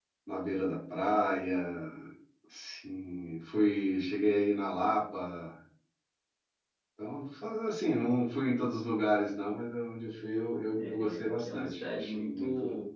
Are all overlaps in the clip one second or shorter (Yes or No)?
No